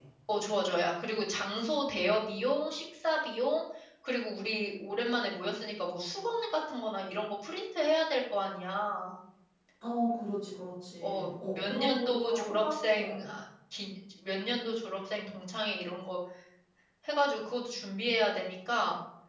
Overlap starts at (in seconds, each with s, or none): 11.0 s